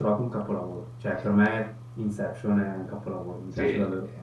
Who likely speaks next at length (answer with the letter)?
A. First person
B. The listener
B